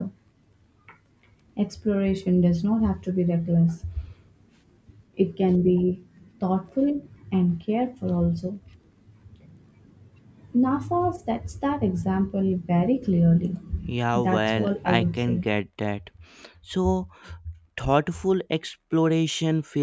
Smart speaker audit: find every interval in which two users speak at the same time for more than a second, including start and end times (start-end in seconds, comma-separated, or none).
14.1-15.4